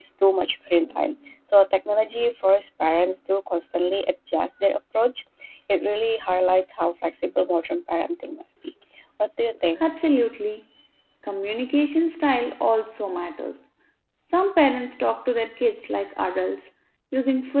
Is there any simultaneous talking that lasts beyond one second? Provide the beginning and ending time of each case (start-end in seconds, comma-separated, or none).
none